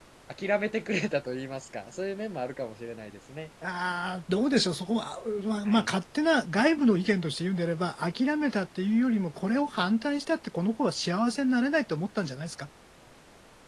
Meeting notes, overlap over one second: none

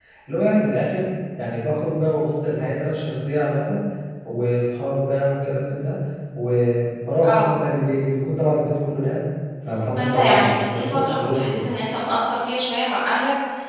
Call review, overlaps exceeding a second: present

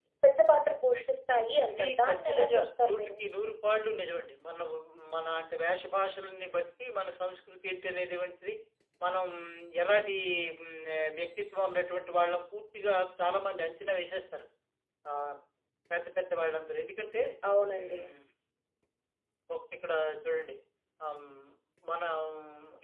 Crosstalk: present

